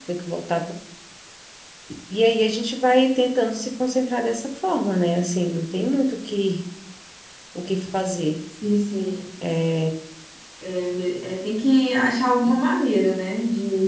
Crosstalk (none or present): none